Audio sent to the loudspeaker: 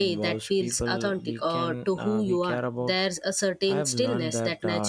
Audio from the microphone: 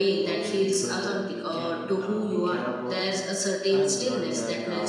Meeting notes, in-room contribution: none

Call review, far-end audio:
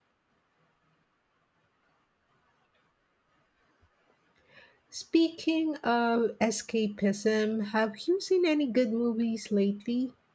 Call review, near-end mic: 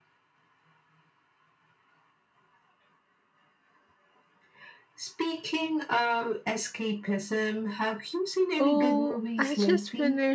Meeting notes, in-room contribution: present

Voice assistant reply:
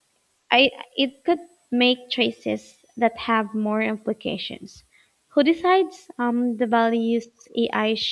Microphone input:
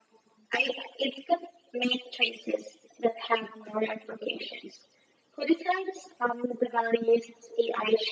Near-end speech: none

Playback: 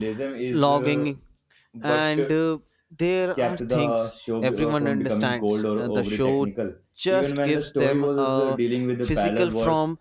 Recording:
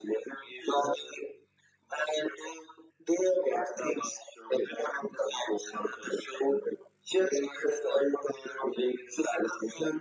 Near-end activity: none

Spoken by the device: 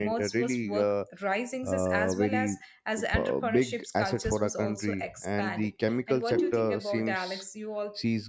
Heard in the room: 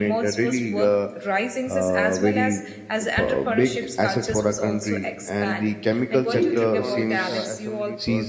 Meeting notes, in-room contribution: present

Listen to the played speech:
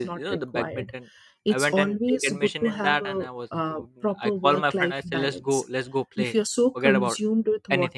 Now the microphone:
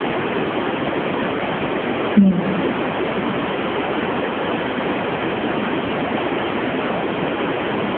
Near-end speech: present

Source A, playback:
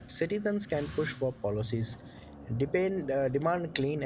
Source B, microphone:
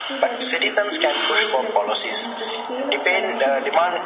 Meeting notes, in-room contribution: present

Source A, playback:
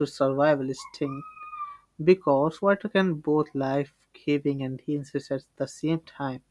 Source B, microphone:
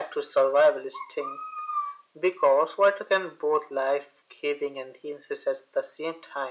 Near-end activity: none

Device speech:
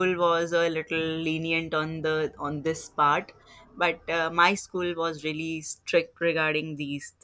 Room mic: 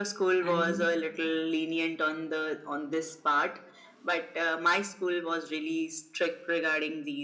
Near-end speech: present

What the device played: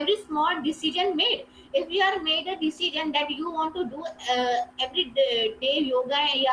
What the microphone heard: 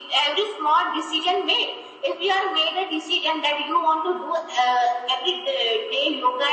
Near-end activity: none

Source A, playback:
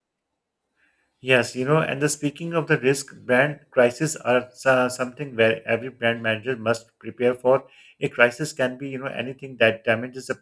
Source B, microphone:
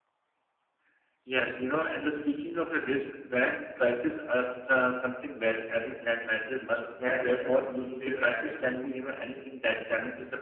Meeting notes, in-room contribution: present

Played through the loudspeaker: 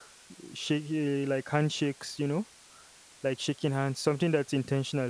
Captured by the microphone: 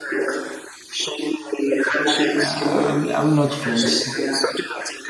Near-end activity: present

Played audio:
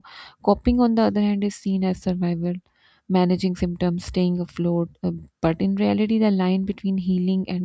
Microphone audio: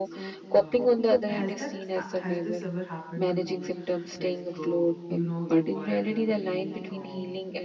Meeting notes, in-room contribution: present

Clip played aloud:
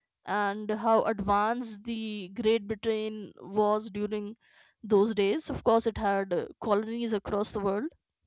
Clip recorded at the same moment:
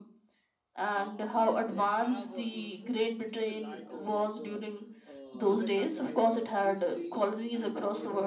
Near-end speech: present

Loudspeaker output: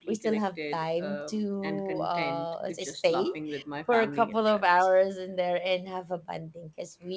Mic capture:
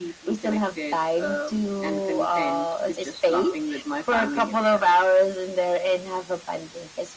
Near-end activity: none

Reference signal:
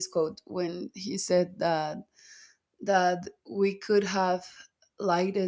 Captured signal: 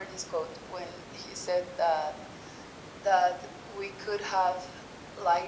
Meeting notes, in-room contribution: none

